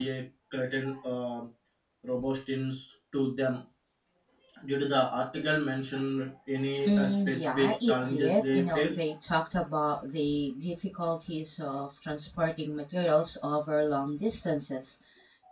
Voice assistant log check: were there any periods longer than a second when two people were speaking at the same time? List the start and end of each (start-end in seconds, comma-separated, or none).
6.8-9.0